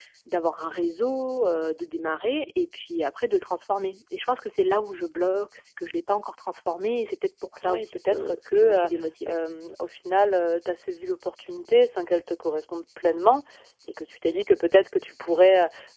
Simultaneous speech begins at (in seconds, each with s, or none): 7.6 s